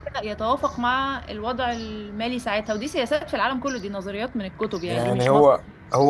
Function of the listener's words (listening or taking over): taking over